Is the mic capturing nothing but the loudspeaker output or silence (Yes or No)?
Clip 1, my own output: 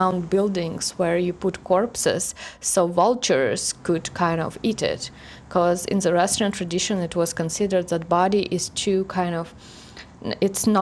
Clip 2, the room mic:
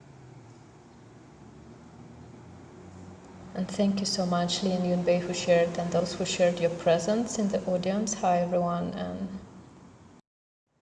No